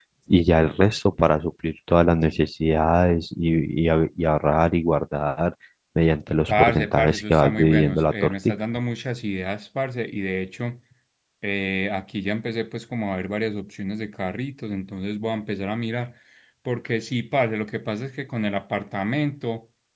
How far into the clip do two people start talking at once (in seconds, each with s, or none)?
6.5 s